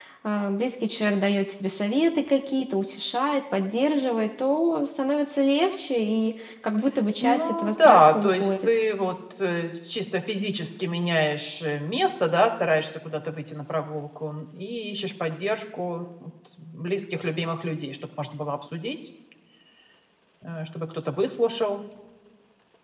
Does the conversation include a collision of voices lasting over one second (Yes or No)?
Yes